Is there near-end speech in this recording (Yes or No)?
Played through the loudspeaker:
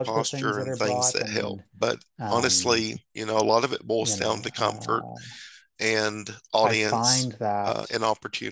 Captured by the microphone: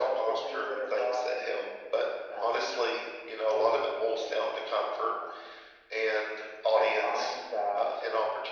No